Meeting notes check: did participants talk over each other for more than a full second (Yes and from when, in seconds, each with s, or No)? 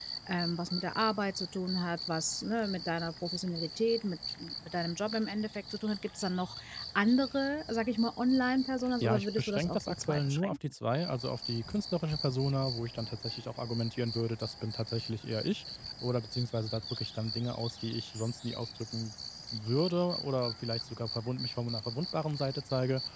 Yes, from 9.0 s